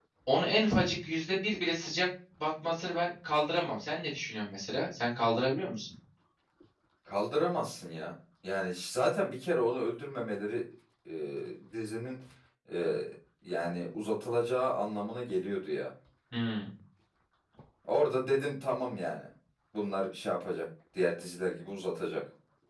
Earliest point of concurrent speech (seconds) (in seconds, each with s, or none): none